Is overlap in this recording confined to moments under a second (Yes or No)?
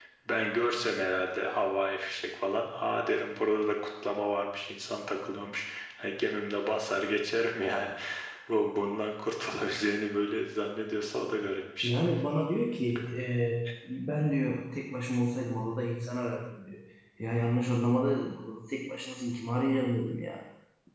Yes